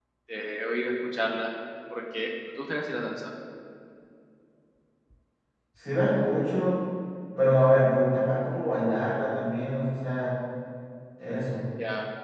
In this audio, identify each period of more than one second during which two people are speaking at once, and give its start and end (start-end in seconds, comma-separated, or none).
none